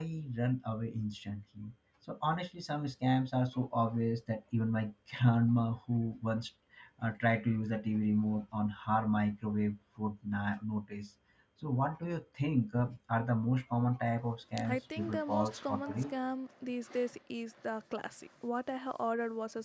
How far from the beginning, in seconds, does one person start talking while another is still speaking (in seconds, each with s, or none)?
14.6 s